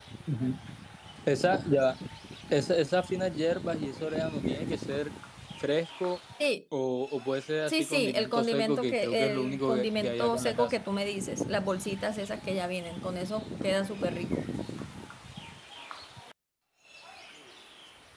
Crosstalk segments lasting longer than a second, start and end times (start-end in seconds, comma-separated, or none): 7.7-10.8